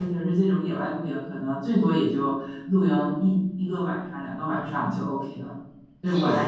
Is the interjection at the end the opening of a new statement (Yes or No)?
No